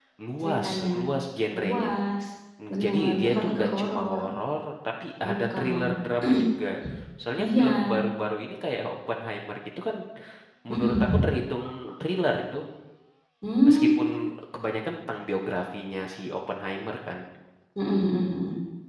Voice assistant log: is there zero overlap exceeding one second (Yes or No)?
No